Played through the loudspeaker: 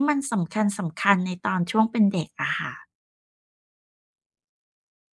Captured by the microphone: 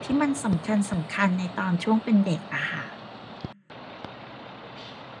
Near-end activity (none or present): none